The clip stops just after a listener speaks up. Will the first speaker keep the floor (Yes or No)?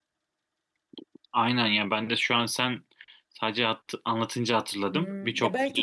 No